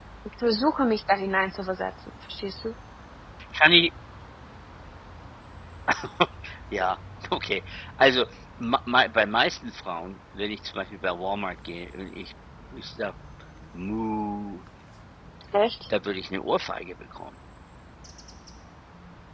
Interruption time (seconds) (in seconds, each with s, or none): none